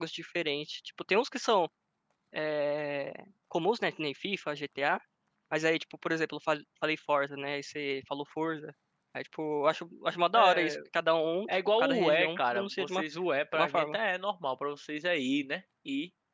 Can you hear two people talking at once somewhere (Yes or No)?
Yes